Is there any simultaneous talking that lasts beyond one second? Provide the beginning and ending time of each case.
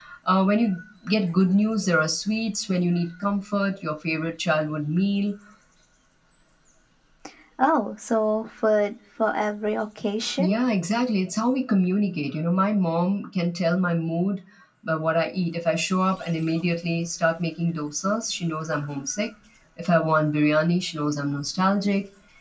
none

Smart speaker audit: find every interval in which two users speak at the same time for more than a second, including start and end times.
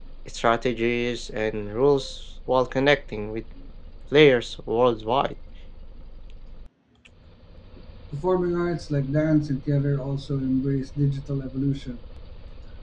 none

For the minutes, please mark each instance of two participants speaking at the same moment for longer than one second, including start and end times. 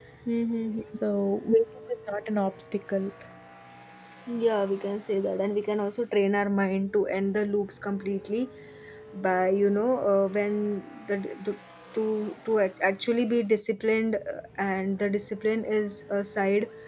none

